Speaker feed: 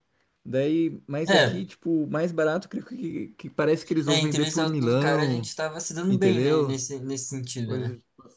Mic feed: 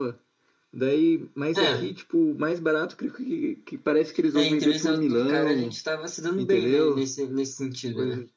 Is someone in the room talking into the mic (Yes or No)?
No